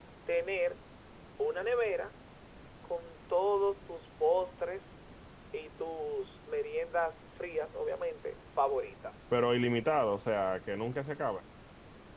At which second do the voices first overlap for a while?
none

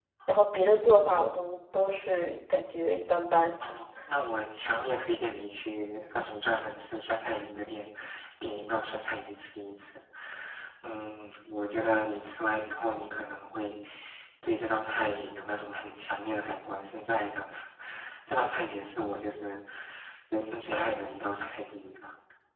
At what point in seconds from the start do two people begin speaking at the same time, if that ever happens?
none

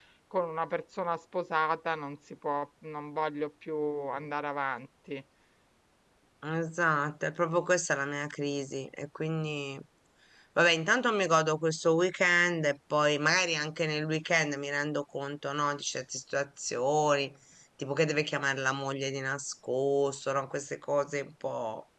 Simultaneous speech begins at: none

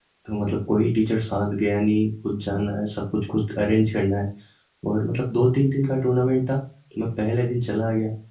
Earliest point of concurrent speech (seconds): none

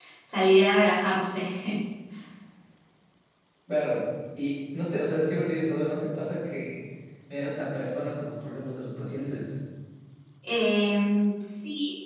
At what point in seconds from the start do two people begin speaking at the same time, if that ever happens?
none

